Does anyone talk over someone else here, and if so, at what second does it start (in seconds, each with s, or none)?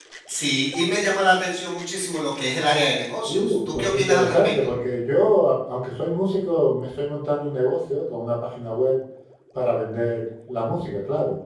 3.3 s